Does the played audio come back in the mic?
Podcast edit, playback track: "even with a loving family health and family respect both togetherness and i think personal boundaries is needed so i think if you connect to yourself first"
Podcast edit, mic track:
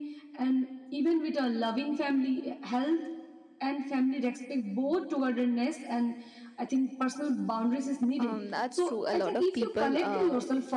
Yes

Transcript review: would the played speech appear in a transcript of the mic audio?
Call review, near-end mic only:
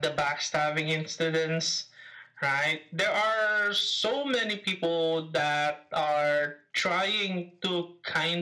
Yes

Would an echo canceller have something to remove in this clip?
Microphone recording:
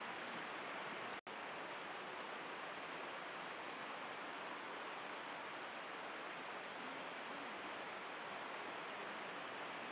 No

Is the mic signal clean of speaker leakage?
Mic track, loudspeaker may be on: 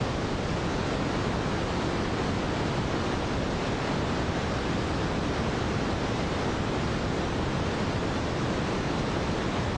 Yes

